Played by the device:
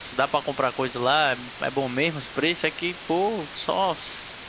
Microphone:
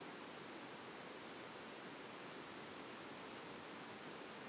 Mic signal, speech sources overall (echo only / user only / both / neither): neither